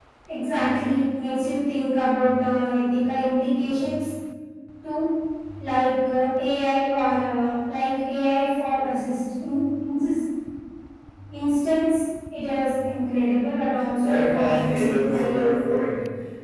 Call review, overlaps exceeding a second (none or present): present